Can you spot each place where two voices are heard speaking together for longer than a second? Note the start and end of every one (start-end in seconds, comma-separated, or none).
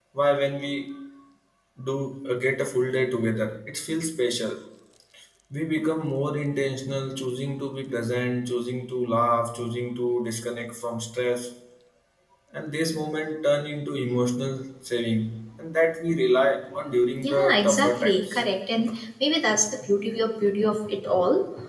17.2-18.4